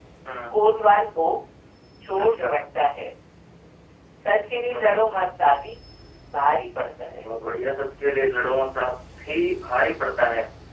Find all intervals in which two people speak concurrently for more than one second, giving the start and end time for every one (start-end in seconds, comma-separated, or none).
none